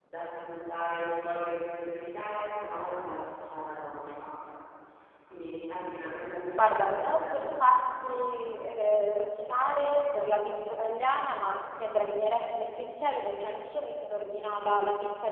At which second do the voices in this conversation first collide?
6.6 s

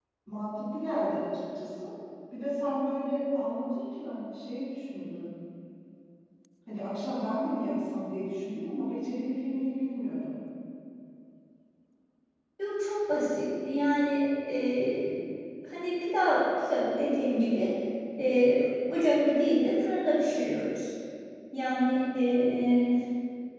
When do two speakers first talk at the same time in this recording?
none

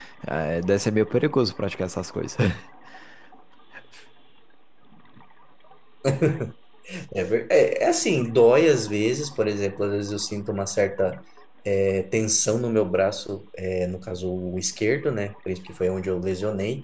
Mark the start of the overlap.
none

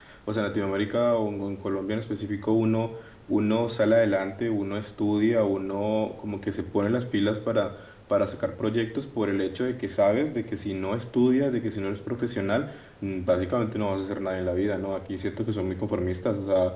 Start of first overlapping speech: none

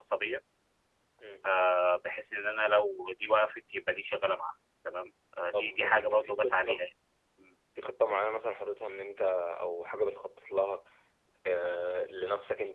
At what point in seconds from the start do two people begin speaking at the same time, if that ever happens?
5.5 s

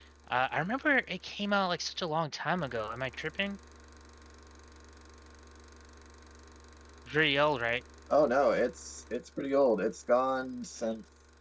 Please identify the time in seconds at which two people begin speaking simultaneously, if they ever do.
none

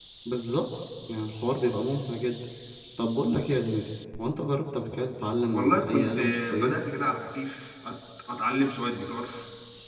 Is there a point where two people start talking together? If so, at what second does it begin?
5.5 s

